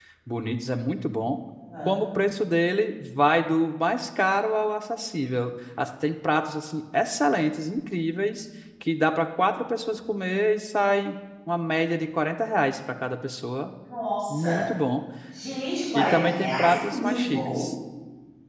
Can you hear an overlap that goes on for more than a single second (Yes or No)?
Yes